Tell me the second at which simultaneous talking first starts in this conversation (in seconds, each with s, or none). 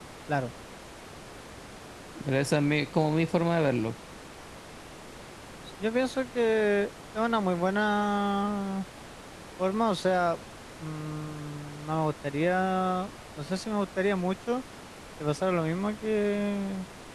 none